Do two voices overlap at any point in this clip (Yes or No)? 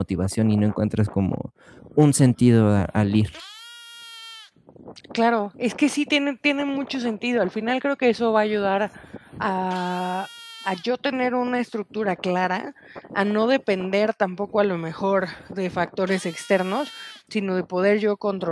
No